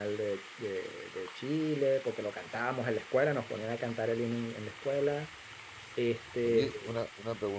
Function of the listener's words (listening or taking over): taking over